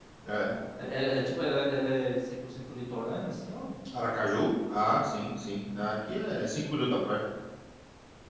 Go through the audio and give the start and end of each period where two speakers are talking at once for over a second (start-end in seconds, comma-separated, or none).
none